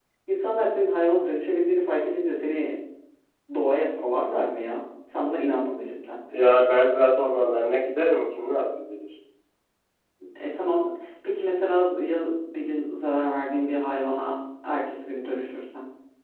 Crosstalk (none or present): none